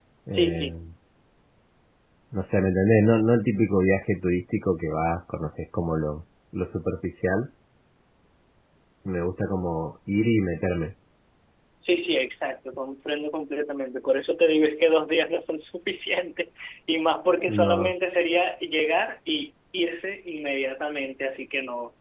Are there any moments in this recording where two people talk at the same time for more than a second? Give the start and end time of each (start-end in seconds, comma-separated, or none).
none